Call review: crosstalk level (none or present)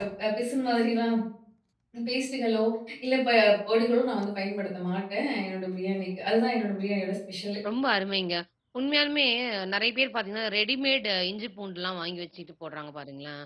none